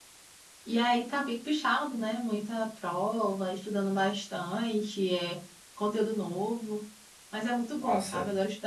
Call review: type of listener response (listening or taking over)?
listening